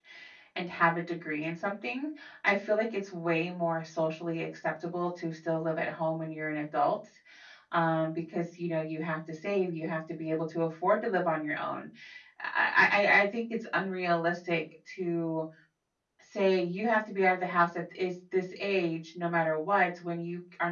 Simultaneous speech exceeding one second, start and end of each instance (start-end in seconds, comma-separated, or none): none